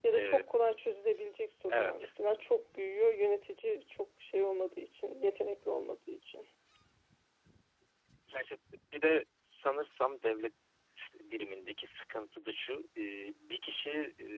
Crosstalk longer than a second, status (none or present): none